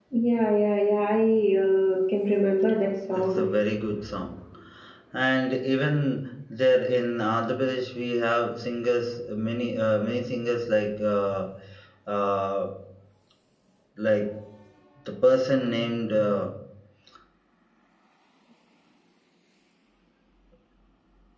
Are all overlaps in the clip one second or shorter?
Yes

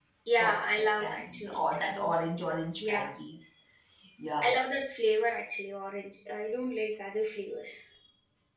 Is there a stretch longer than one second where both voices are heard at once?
Yes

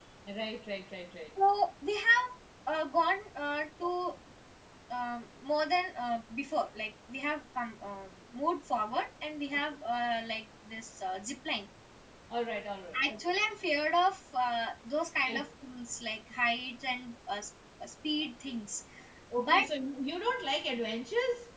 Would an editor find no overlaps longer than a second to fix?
Yes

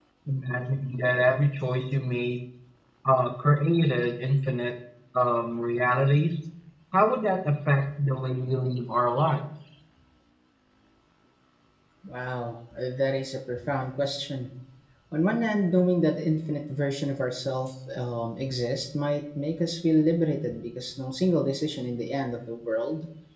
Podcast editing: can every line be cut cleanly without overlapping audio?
Yes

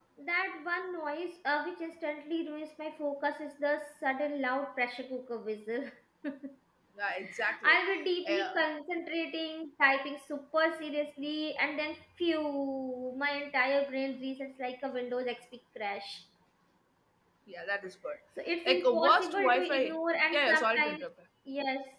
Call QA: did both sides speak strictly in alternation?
No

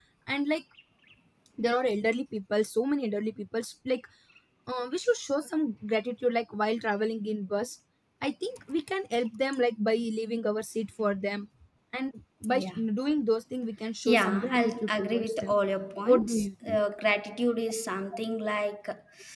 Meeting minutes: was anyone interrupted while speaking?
Yes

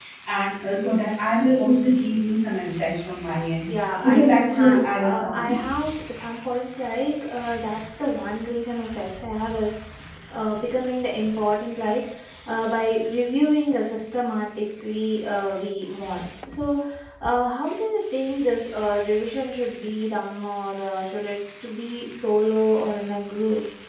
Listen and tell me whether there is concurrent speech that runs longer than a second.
Yes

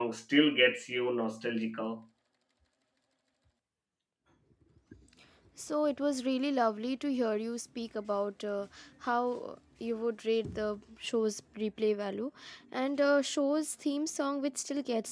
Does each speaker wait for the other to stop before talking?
Yes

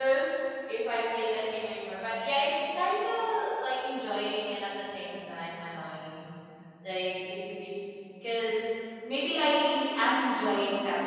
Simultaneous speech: No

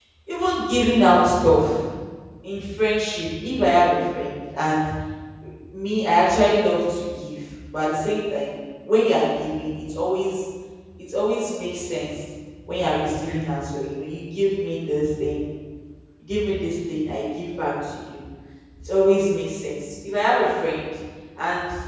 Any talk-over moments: No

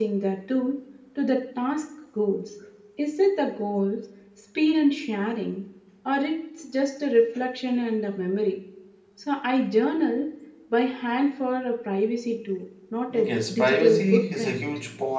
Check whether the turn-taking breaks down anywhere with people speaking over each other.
Yes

